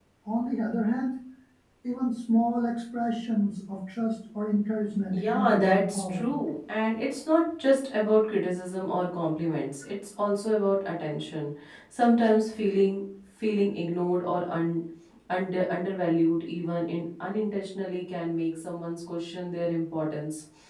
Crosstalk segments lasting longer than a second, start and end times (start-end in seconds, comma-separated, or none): 5.1-6.4